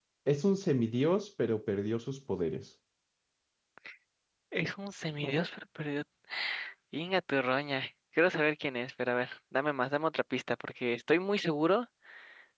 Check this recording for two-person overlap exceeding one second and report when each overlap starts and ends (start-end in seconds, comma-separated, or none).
none